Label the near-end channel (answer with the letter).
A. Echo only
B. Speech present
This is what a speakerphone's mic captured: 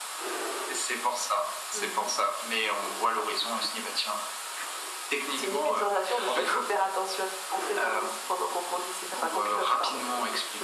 A